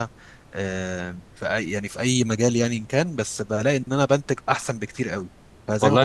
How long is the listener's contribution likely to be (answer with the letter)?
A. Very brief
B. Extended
B